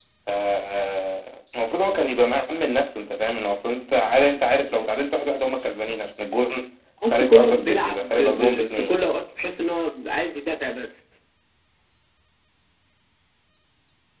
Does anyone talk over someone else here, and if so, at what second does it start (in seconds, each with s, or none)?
7.0 s